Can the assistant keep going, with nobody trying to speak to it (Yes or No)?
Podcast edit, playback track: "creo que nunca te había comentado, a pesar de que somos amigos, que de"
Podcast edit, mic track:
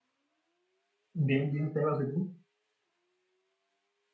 No